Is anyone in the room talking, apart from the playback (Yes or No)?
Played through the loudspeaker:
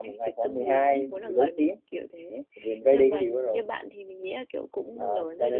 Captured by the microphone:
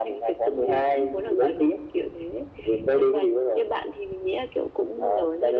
No